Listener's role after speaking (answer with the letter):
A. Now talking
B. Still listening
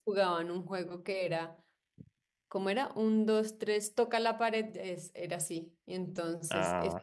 B